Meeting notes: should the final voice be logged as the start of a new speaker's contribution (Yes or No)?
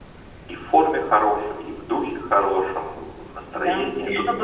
Yes